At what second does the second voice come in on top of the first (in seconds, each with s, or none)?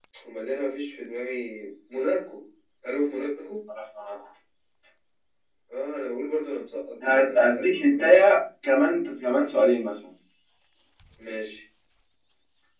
7.0 s